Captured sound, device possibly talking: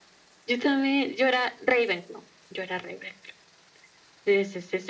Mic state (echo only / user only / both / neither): echo only